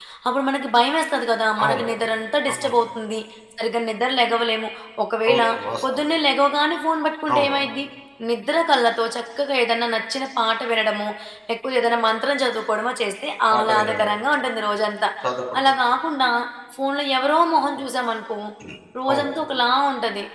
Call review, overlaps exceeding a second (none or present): none